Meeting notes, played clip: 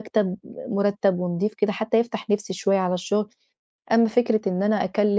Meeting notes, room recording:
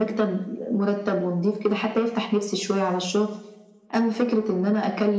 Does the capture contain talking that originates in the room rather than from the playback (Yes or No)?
No